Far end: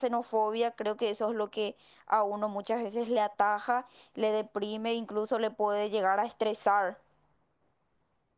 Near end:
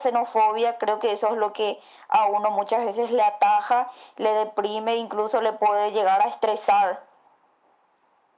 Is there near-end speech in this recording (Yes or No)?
No